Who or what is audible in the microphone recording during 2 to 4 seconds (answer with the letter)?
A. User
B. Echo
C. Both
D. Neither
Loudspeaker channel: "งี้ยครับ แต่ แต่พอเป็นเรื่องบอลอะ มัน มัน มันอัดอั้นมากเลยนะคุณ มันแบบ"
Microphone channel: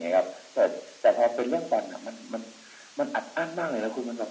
B